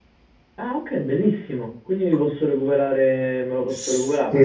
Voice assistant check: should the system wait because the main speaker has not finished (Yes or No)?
No